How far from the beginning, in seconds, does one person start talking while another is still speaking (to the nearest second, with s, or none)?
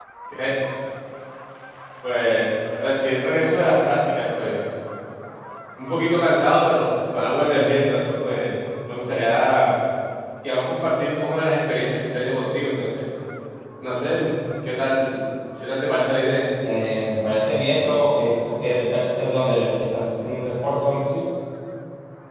none